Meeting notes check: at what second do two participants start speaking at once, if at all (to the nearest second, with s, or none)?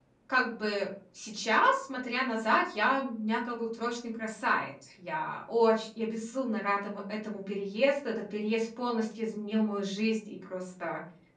none